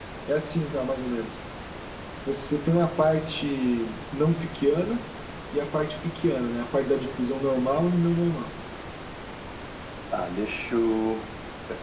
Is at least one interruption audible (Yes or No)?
No